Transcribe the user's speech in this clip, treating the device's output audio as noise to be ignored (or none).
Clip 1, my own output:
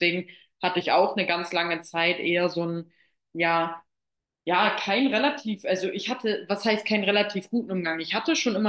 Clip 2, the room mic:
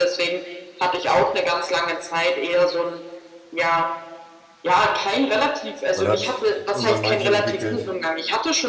man hat irgendwann ein Mindset entwickelt,